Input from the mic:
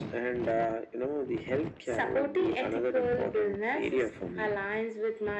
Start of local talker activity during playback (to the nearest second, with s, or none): none